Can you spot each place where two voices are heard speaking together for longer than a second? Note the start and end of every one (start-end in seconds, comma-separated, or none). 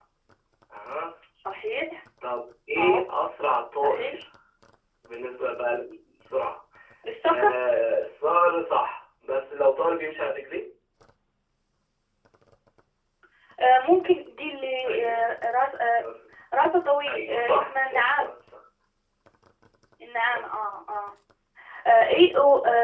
17.1-18.3